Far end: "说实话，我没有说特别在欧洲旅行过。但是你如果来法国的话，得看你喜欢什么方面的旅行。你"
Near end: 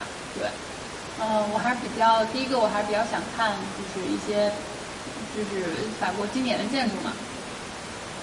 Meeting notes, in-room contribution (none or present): present